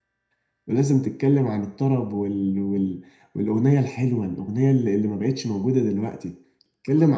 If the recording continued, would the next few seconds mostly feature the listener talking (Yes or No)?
No